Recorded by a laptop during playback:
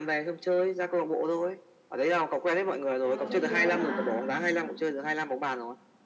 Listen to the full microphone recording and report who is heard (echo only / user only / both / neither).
both